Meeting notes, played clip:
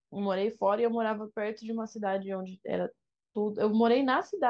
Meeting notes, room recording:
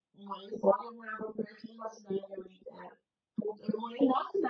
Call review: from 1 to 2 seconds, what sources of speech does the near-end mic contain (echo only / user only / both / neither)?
echo only